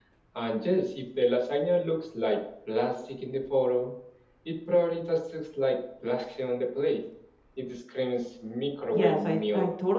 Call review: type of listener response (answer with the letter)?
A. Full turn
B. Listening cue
A